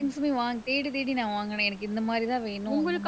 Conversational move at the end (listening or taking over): taking over